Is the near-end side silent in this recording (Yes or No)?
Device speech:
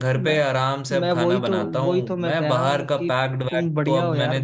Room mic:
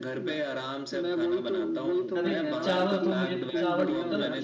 No